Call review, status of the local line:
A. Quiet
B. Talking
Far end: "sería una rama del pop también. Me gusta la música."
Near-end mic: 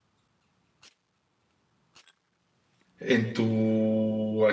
B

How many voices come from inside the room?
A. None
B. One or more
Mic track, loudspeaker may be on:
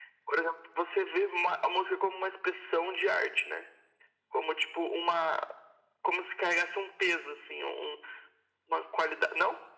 A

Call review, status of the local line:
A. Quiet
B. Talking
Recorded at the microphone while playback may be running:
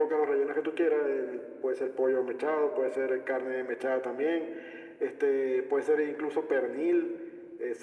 A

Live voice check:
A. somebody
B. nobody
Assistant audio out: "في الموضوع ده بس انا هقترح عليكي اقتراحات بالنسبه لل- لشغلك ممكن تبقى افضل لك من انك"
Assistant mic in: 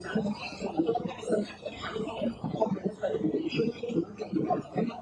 B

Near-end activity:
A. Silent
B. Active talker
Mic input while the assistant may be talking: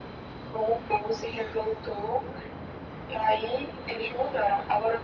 A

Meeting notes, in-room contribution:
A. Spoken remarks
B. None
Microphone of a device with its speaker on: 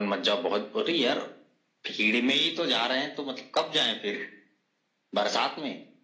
B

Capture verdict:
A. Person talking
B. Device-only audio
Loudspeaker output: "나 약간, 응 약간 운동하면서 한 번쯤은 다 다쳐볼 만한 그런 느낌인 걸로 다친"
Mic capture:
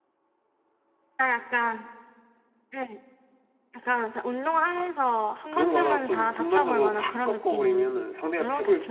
A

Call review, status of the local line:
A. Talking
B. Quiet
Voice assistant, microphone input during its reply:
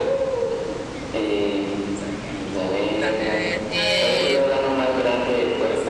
A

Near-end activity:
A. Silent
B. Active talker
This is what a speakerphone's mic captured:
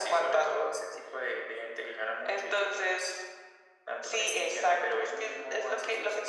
A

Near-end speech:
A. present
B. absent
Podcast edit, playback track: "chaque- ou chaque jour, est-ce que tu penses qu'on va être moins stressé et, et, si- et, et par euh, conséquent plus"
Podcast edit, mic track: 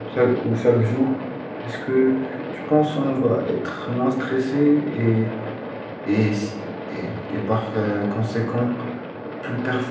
B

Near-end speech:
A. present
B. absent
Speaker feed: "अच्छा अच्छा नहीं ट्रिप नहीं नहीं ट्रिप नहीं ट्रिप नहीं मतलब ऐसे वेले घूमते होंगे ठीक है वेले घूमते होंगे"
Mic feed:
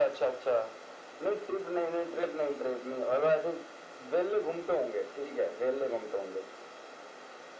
B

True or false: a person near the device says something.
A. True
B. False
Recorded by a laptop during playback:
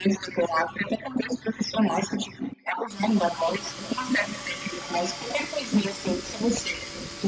B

